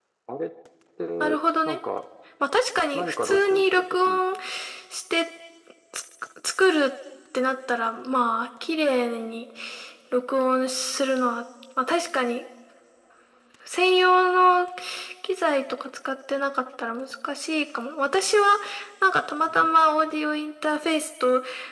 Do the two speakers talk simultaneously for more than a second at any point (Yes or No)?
Yes